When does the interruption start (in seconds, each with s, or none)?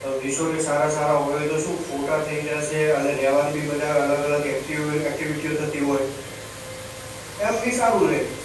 none